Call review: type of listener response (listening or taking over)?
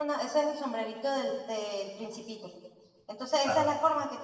listening